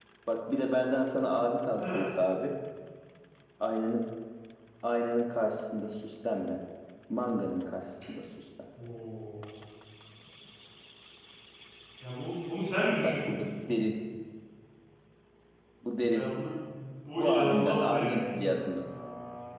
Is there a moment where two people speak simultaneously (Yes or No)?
Yes